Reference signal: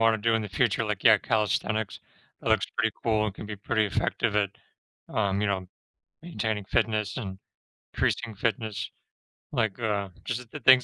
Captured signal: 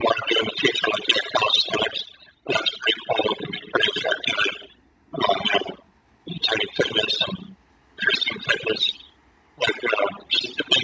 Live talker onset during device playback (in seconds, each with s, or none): none